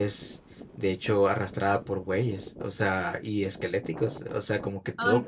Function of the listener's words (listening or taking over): listening